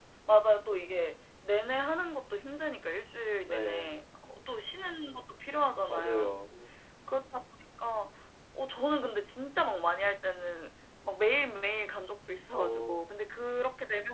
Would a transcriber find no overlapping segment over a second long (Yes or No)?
Yes